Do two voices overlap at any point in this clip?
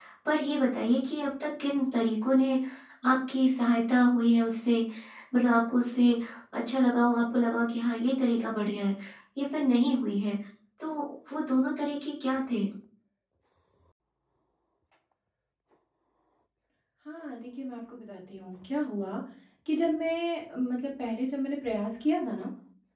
No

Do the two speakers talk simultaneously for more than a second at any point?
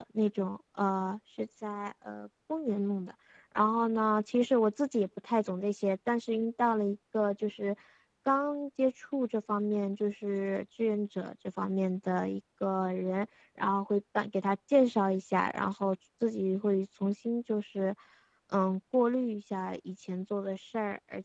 No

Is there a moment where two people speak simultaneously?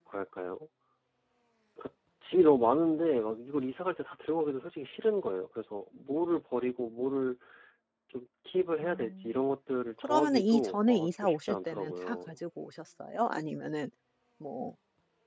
Yes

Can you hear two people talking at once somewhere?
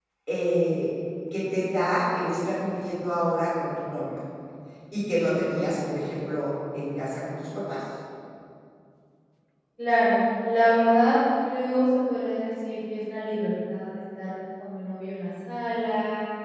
No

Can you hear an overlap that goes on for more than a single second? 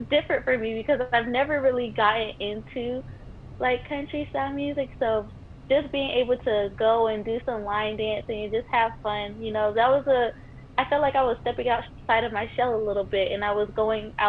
No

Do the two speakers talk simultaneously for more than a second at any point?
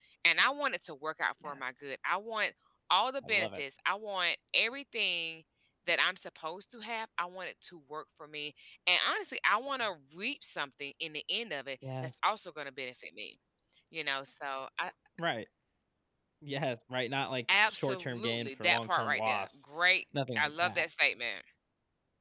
Yes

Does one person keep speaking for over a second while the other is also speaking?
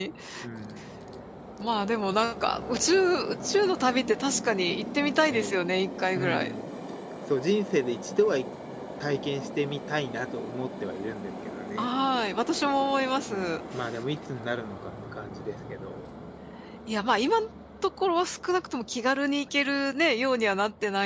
No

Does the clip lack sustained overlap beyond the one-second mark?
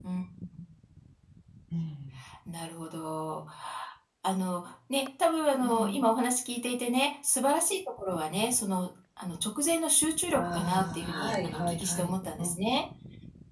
No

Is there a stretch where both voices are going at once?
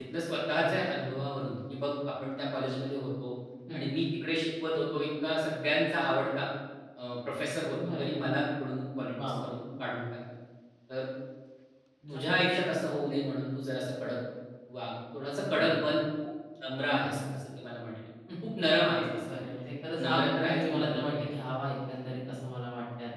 Yes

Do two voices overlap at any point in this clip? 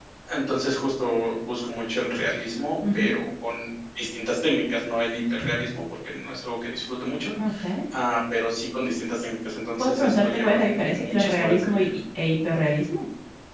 Yes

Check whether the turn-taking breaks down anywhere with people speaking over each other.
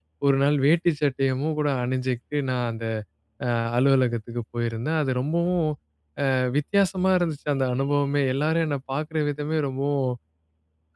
No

